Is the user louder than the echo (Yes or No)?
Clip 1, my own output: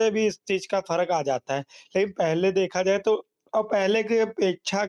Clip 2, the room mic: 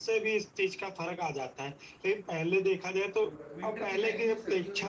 No